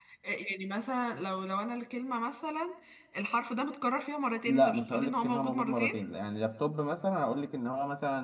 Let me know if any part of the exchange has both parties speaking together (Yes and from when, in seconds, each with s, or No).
Yes, from 4.5 s